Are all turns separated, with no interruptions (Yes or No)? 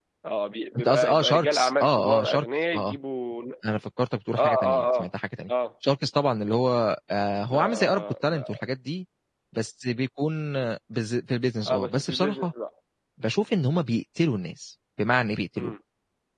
No